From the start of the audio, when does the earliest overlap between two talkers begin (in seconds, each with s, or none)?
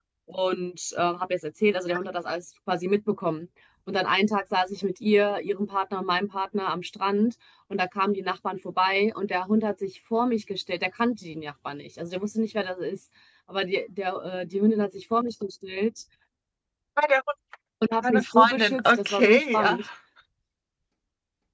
18.0 s